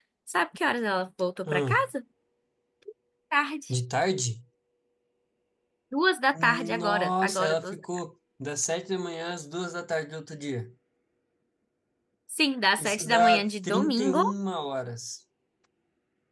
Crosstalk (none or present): present